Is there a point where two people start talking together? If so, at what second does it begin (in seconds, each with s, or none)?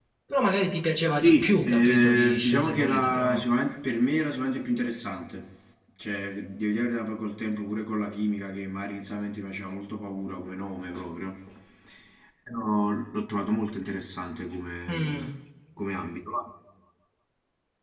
1.2 s